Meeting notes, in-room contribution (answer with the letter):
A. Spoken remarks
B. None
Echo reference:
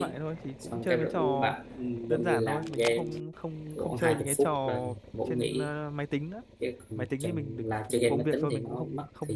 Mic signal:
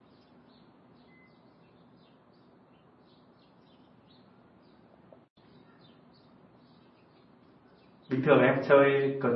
A